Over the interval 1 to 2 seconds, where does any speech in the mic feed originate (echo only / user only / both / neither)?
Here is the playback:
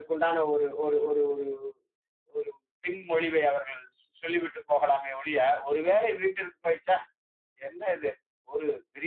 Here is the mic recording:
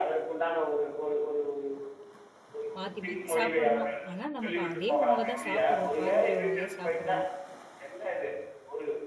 echo only